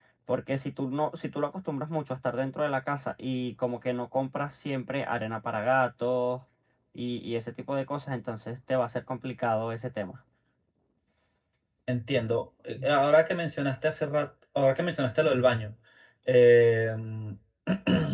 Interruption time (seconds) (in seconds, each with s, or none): none